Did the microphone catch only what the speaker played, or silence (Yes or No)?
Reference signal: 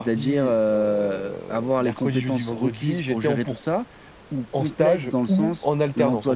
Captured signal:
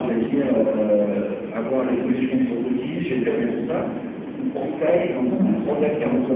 Yes